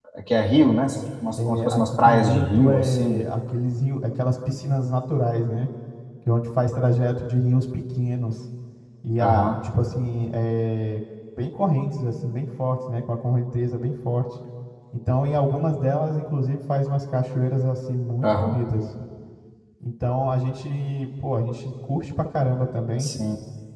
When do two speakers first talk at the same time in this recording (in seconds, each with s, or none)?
1.4 s